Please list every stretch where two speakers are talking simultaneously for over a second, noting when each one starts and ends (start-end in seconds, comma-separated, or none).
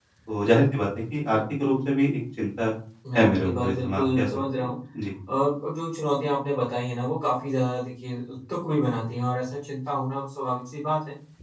3.2-4.7